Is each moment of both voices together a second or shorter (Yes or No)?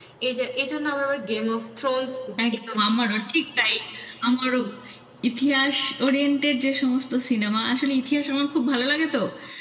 Yes